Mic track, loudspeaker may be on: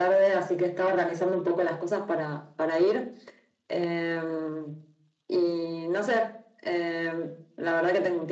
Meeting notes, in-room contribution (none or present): none